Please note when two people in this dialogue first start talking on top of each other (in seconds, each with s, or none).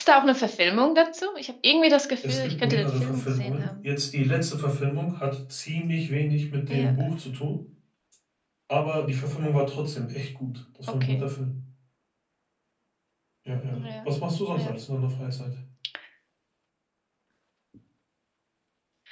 2.3 s